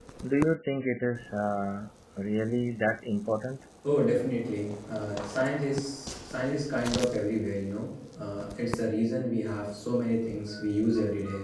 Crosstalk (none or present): none